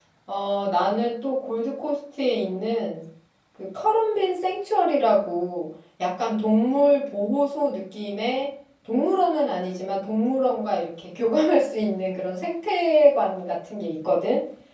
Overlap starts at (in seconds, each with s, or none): none